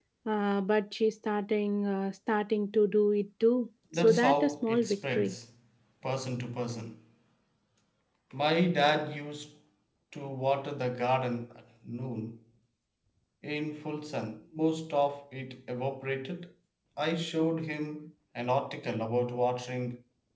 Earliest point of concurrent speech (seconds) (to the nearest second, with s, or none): 4 s